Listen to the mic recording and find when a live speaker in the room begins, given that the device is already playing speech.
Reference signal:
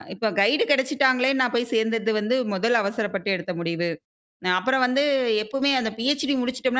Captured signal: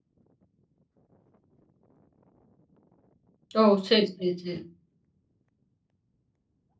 3.6 s

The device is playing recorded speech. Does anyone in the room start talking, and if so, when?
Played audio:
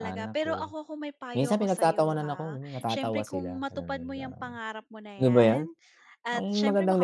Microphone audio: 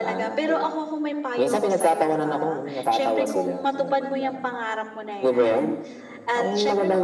none

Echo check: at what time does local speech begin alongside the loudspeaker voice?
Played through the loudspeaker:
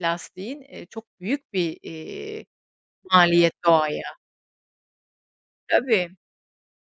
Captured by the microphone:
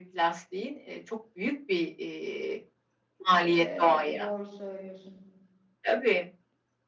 3.6 s

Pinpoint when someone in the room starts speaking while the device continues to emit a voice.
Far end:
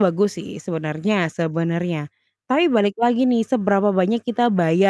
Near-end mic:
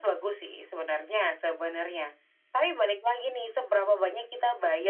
none

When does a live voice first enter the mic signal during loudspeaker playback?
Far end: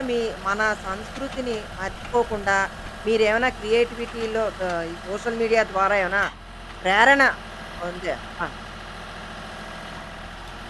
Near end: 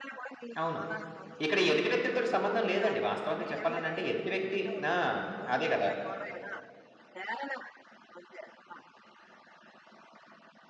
0.6 s

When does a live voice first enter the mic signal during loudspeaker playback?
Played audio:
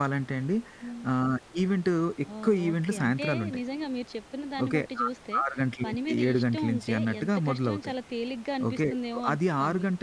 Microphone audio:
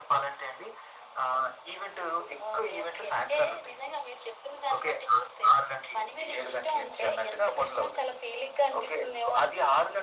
none

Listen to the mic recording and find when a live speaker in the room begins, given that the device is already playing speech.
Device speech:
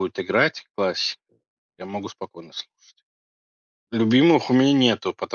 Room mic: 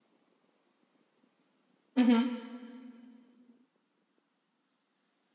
1.9 s

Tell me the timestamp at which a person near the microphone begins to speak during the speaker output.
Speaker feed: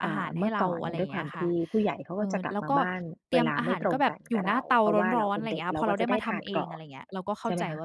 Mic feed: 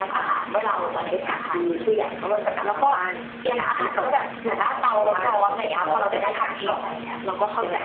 none

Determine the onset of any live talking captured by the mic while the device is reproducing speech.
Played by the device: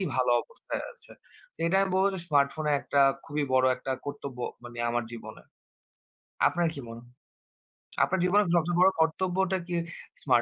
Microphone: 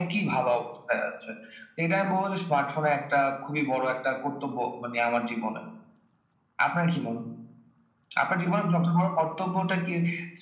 none

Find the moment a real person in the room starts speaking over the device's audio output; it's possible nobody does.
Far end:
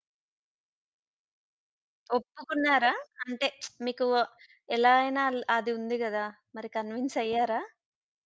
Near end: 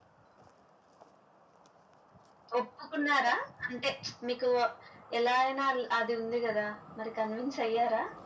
none

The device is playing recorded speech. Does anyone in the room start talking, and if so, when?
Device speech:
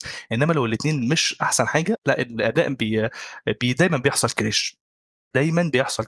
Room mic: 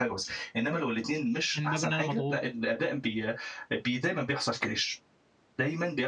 1.6 s

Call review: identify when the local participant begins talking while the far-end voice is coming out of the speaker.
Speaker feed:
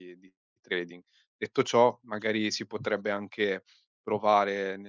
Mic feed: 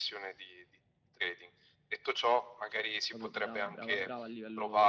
3.0 s

